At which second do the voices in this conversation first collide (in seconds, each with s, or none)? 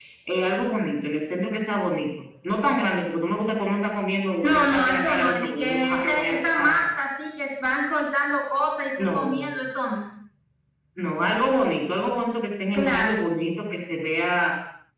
4.4 s